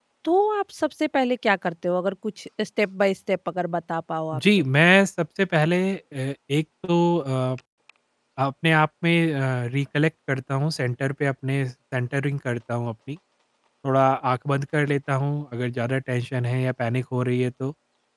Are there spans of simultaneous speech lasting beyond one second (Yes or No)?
No